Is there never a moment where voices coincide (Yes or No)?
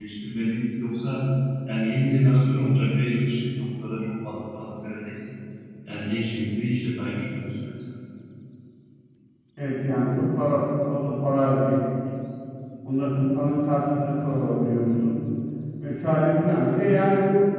Yes